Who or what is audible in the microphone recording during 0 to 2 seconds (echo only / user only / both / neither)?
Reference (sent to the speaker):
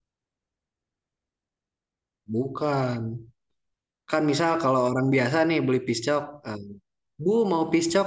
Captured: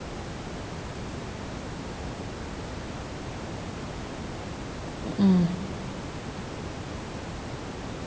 neither